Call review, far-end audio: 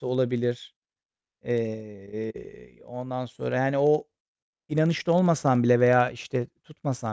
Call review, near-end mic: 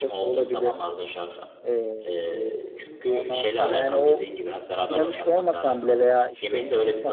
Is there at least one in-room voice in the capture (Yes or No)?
Yes